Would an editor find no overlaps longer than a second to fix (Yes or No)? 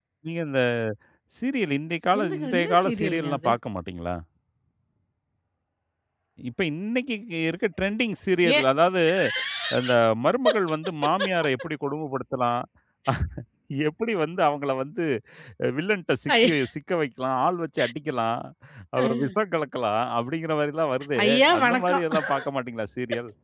No